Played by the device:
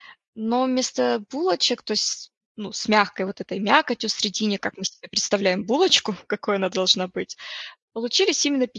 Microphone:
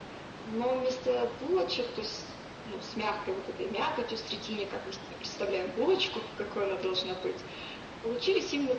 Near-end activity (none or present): none